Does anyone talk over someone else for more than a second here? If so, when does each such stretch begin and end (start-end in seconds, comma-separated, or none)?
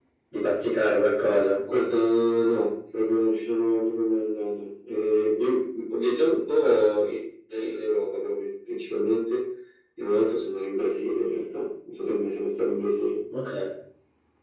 none